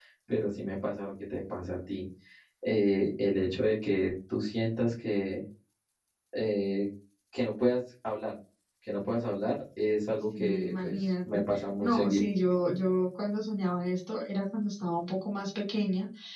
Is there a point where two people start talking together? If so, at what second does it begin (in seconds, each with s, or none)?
10.3 s